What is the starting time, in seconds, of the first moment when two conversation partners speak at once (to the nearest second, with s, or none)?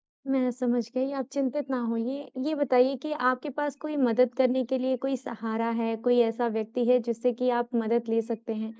none